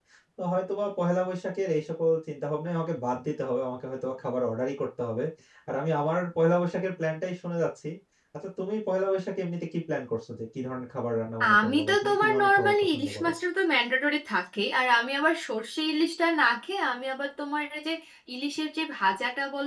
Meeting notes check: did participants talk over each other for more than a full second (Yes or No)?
Yes